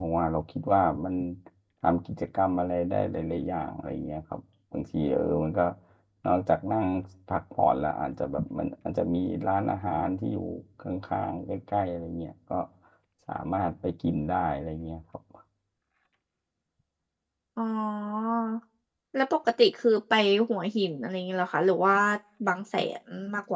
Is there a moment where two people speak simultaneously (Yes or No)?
No